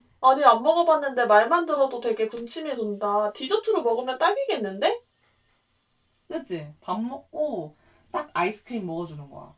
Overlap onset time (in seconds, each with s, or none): none